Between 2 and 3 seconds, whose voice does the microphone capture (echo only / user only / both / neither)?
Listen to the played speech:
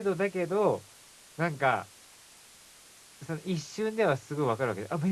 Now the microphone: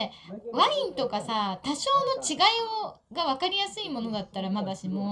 both